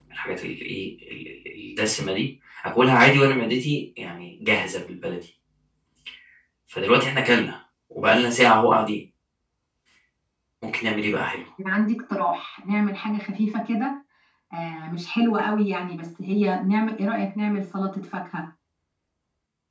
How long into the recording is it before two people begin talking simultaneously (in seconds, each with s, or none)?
none